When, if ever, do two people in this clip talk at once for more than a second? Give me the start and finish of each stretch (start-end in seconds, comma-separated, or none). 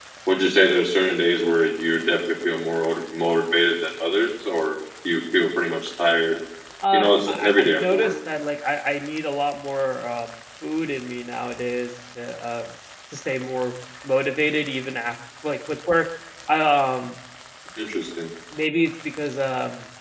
6.9-8.1